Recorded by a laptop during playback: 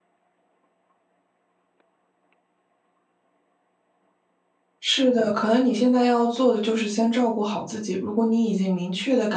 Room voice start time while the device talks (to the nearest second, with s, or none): 5 s